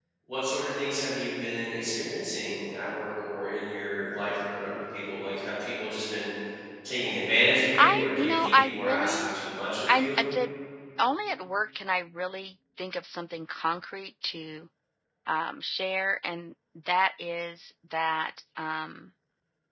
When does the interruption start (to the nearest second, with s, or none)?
8 s